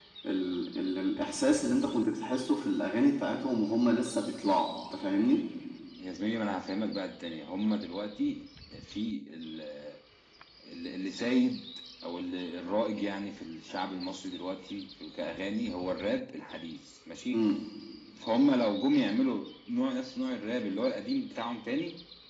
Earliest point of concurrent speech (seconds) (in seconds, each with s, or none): none